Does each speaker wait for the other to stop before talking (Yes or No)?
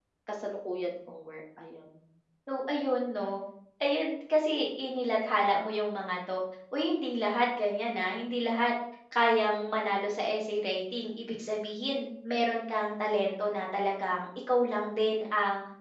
Yes